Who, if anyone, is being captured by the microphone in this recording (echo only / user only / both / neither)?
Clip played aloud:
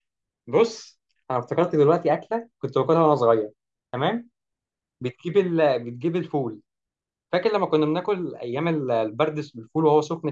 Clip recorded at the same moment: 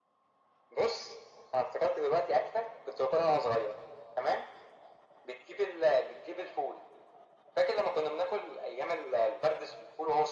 echo only